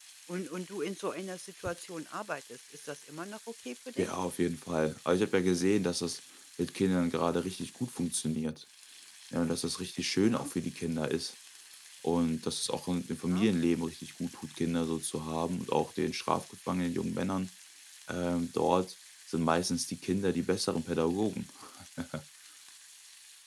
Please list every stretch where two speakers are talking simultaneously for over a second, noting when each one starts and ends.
none

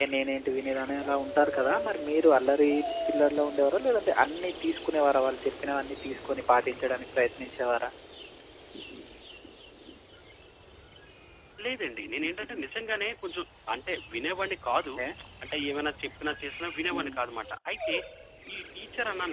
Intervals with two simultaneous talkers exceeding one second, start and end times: none

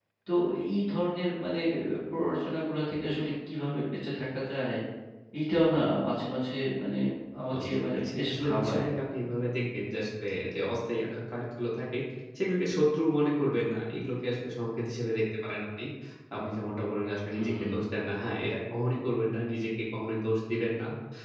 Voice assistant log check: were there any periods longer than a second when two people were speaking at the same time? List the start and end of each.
7.5-8.8

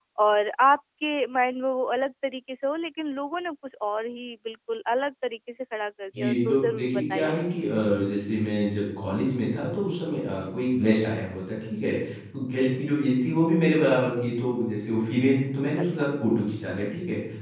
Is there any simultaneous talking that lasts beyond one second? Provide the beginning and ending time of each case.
6.2-7.5

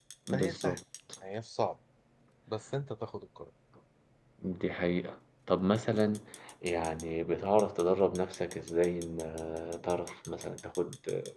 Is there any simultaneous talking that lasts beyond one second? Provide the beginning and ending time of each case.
none

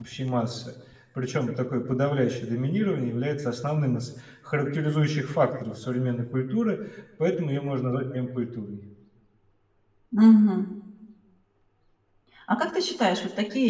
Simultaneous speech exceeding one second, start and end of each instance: none

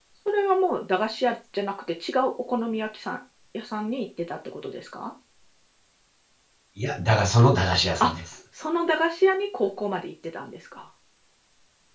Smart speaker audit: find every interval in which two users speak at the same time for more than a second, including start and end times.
none

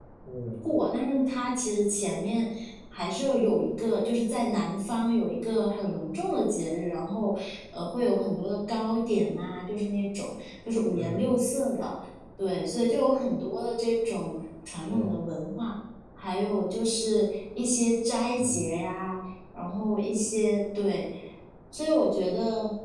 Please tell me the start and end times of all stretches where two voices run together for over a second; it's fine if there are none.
none

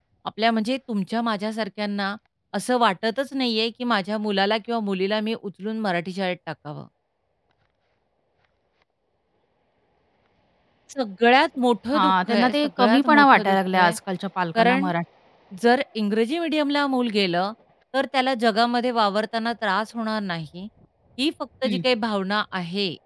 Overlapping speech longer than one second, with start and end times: 12.0-14.0

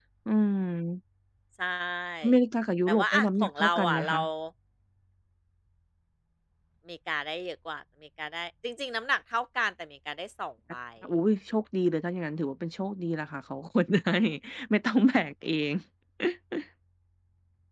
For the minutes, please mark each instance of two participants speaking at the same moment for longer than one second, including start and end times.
2.9-4.2

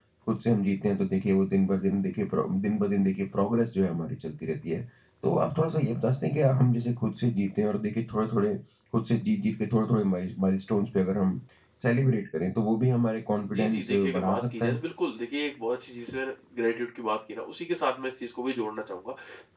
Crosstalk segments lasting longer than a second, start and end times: 13.5-14.8

